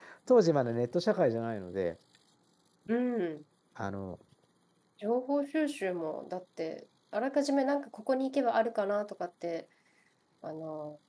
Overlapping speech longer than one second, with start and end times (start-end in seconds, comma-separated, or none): none